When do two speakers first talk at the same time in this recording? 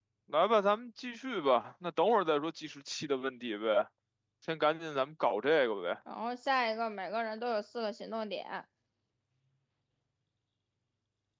none

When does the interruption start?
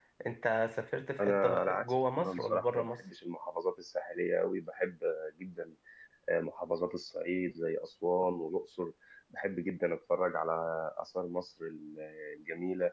1.2 s

